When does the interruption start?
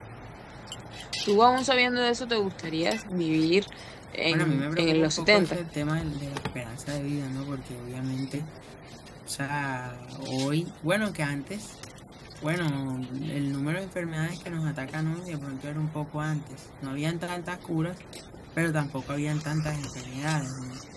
4.3 s

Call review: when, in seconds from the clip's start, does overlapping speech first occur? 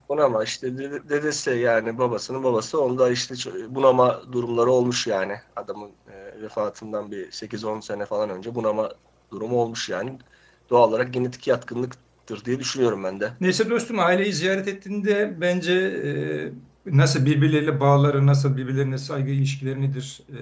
none

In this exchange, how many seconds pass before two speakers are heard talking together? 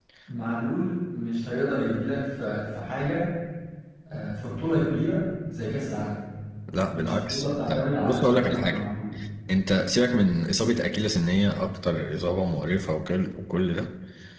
7.0 s

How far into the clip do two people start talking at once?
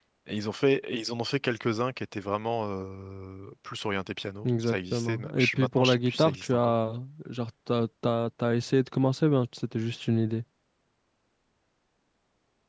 4.4 s

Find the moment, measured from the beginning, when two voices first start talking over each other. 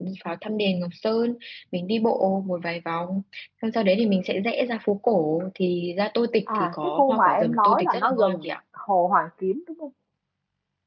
6.5 s

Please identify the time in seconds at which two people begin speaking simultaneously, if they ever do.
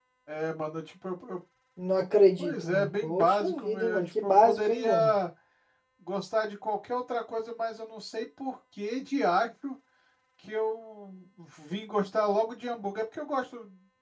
2.4 s

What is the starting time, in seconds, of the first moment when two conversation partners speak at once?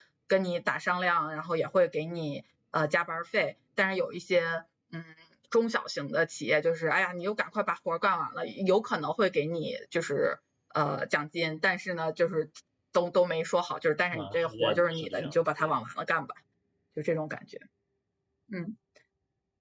14.1 s

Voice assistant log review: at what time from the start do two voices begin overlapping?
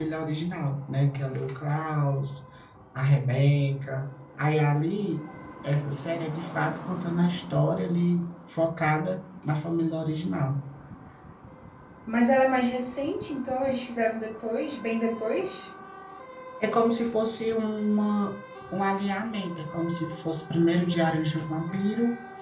none

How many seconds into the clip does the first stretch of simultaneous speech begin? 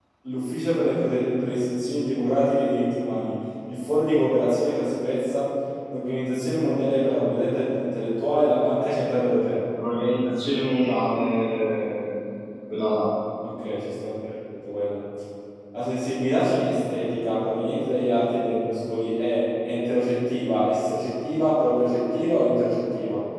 none

